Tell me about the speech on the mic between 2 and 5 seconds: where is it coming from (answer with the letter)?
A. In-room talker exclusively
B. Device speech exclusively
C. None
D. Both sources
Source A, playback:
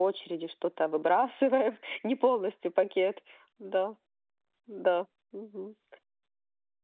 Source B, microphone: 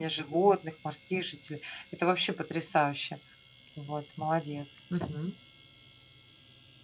A